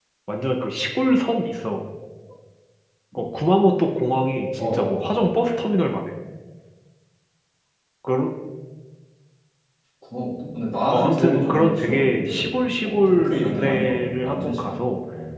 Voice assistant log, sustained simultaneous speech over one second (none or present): present